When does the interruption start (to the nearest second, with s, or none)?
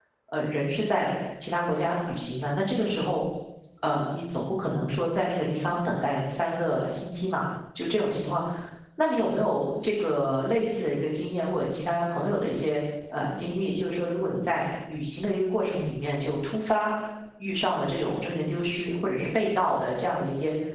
none